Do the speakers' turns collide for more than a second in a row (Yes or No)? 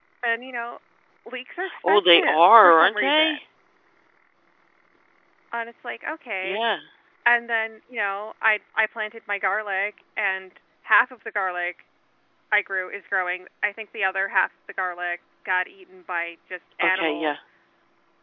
Yes